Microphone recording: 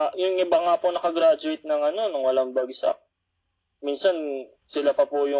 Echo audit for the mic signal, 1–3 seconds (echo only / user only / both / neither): echo only